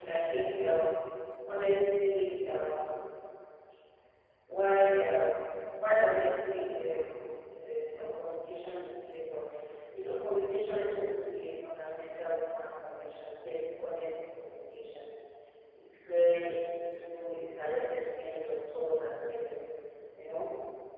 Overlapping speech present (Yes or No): No